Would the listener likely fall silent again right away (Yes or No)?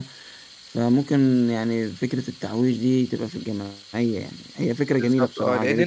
No